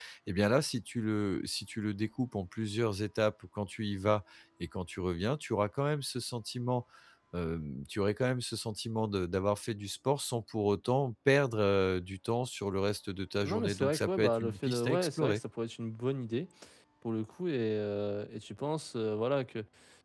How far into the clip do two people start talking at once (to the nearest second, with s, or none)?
13 s